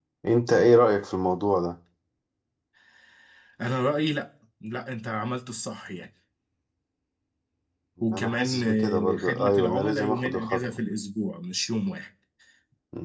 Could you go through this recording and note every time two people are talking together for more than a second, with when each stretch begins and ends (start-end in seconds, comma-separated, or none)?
8.1-10.6